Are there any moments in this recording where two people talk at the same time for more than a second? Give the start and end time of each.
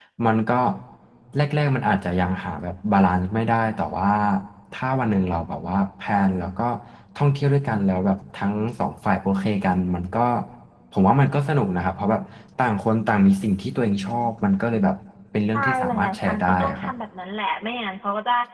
15.5-16.9

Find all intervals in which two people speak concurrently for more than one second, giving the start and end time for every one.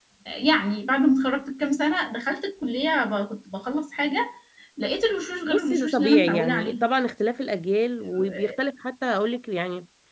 5.5-6.8

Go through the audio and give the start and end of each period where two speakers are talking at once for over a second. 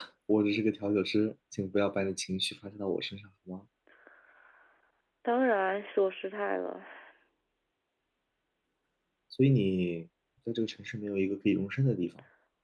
none

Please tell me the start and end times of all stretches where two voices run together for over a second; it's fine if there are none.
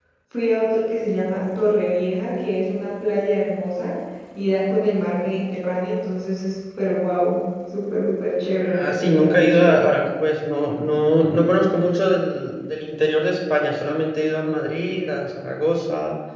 8.6-9.9

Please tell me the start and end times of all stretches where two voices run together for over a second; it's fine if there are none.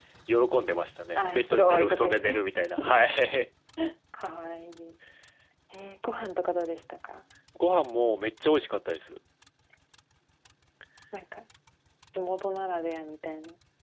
1.2-2.4

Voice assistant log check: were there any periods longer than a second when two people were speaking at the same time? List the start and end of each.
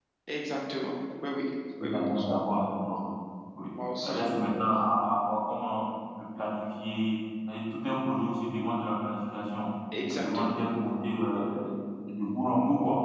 none

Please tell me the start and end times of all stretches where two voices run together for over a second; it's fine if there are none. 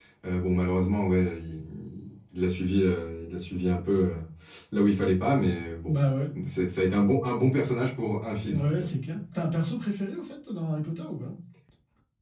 none

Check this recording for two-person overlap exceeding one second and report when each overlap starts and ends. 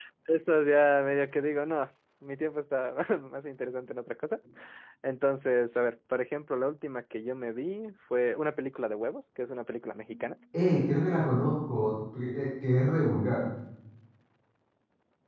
none

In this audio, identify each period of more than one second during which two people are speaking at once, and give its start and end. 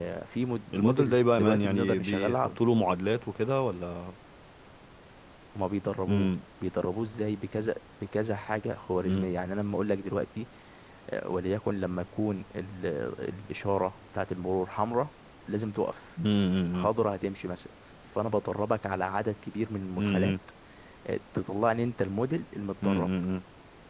0.7-2.6

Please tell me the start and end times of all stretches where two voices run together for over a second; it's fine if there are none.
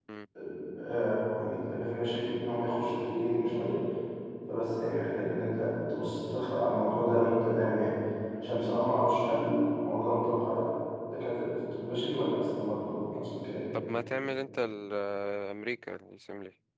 none

